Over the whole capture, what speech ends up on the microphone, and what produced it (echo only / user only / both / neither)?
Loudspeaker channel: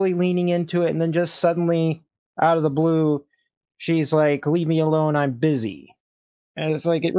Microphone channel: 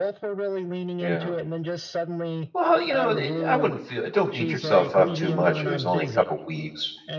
both